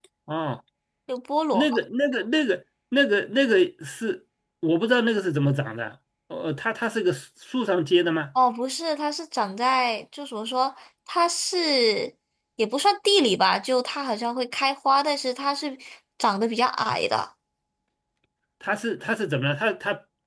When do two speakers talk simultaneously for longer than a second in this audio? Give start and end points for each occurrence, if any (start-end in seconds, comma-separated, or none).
none